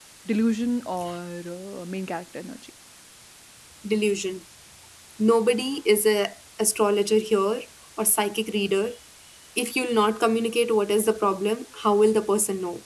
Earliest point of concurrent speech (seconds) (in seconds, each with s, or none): none